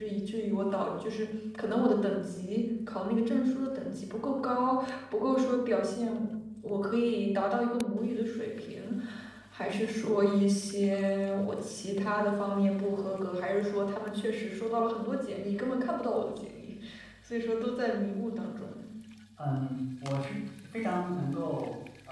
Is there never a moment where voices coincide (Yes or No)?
Yes